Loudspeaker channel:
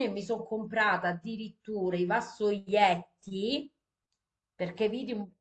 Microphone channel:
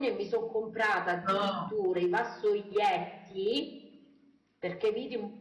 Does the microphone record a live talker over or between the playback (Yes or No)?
Yes